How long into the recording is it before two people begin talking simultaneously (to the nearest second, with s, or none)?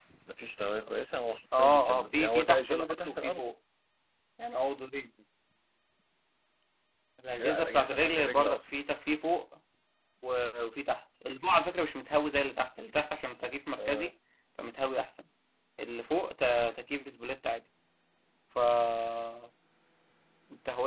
2 s